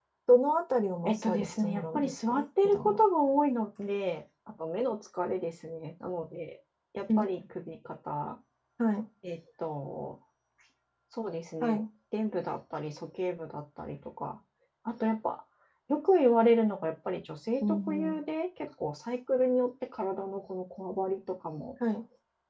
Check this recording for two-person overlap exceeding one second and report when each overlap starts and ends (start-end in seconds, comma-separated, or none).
1.1-3.0